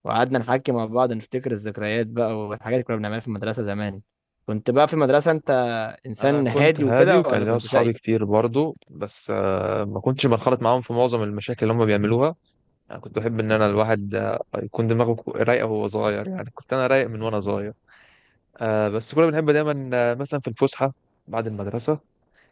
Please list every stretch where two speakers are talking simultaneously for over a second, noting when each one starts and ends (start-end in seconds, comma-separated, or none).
6.2-7.9